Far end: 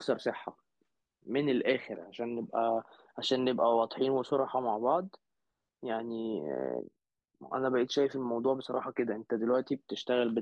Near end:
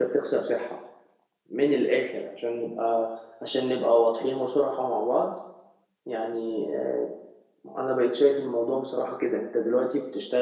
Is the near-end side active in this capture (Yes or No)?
No